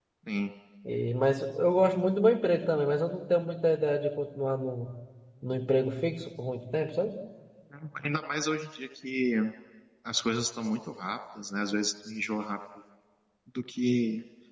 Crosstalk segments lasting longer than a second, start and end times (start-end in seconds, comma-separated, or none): none